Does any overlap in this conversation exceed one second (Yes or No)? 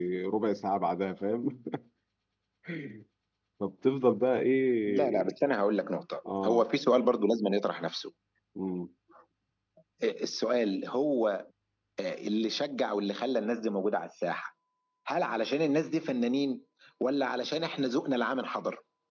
No